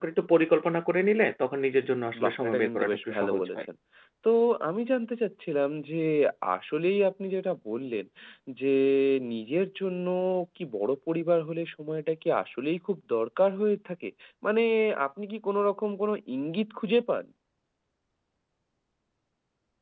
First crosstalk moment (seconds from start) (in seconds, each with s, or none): 2.1 s